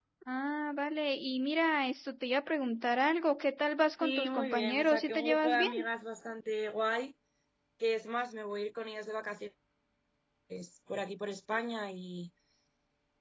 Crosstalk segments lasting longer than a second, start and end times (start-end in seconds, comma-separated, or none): 4.0-5.7